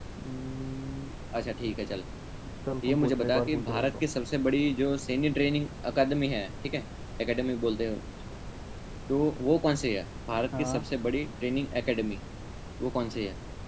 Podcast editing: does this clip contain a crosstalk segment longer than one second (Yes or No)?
Yes